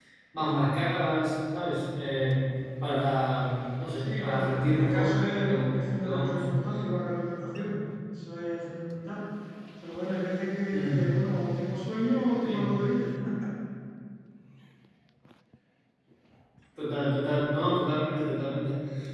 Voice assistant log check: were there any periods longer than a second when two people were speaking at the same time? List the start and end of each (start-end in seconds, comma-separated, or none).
4.0-6.4